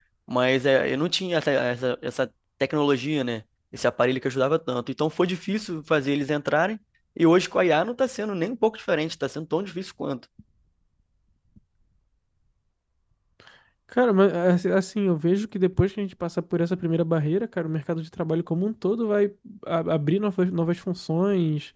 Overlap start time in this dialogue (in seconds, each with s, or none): none